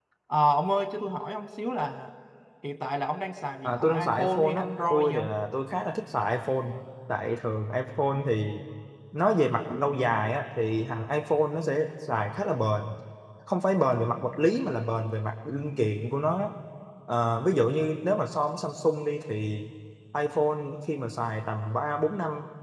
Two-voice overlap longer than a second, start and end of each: 3.6-5.3

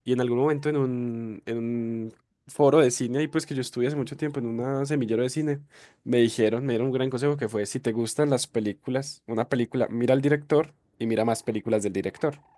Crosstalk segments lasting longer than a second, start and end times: none

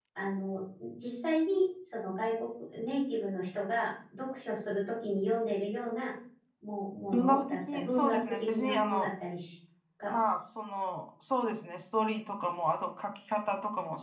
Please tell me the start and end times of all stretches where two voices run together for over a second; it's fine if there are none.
7.1-9.1

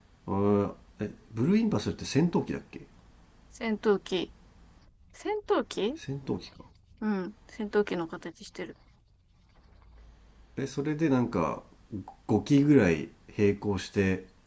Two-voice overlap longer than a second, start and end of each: none

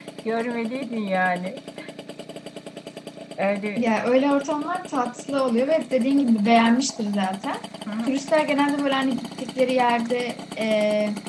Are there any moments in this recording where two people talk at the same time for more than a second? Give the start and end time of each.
none

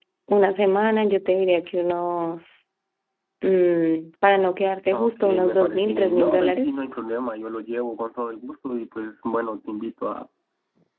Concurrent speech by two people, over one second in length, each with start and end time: 4.9-6.7

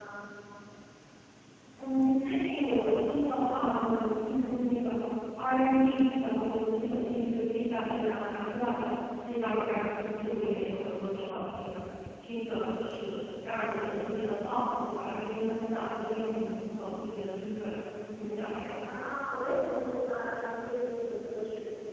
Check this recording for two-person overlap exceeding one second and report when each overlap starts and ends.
none

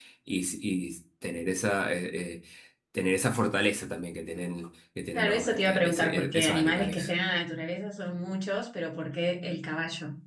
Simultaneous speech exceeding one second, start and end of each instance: 5.2-7.1

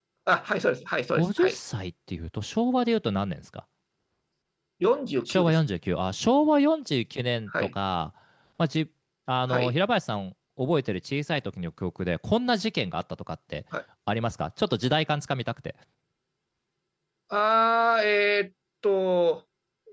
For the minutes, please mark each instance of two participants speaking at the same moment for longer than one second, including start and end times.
none

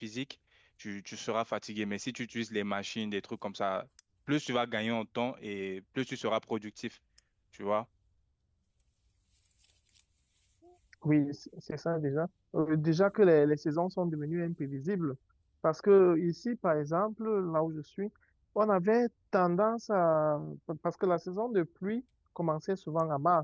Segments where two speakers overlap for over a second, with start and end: none

